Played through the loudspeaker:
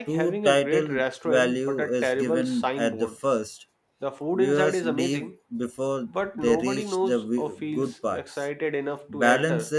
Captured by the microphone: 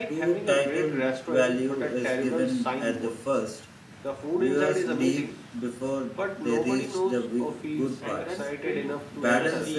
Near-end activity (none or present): present